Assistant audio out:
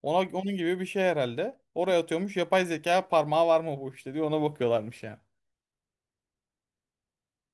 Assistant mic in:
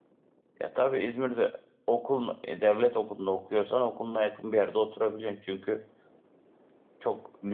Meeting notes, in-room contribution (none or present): present